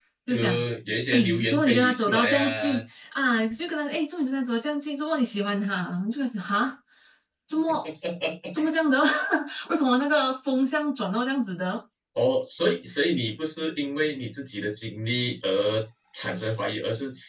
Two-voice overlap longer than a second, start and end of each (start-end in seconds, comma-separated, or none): 1.1-2.8